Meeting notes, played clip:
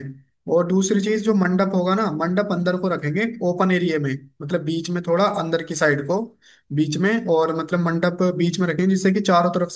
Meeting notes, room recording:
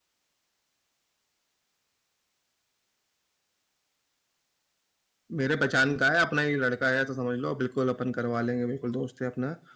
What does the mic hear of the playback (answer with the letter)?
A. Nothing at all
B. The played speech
A